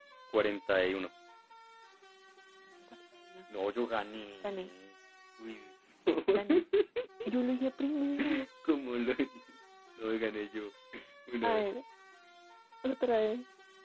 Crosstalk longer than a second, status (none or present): none